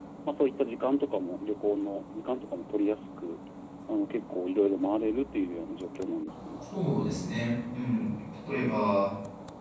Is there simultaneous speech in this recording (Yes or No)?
No